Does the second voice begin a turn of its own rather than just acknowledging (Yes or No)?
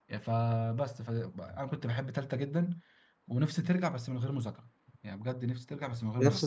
Yes